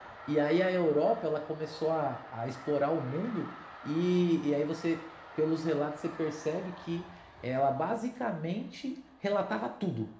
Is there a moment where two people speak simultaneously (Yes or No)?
No